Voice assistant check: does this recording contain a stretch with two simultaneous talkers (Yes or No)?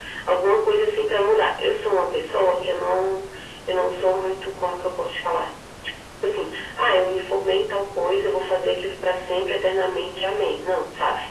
No